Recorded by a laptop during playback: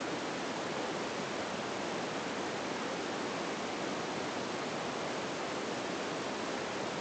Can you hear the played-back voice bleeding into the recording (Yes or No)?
No